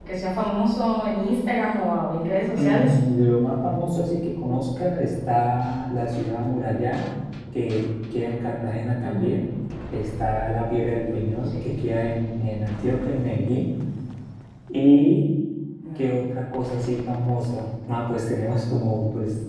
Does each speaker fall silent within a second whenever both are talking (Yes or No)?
Yes